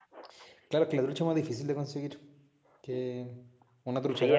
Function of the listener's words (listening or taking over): taking over